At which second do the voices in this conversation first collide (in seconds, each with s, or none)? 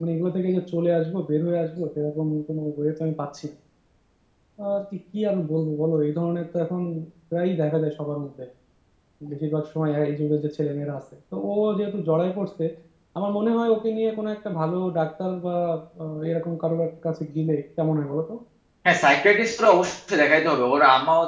none